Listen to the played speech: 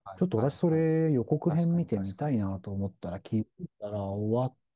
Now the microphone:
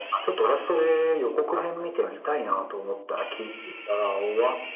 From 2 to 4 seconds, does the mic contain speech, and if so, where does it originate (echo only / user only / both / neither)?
echo only